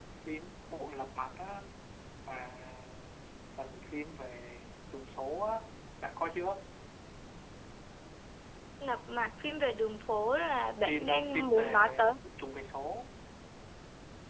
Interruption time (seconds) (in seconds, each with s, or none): 10.8 s